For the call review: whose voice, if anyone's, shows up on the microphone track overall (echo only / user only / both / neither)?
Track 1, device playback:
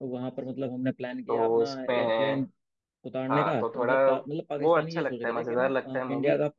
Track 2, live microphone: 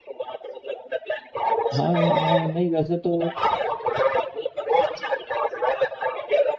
both